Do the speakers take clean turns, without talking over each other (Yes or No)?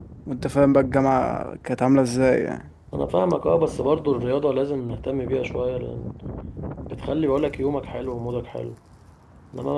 Yes